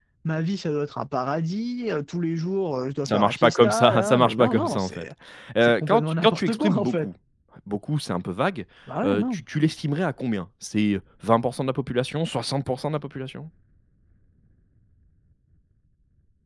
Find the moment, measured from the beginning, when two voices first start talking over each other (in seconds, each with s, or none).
3.1 s